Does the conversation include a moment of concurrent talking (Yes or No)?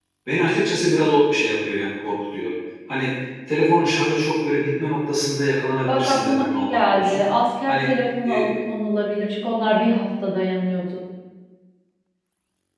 Yes